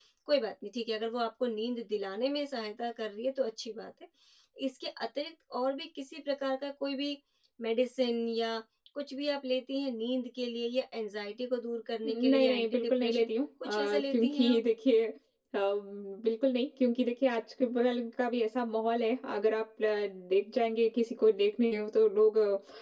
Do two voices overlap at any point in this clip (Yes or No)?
Yes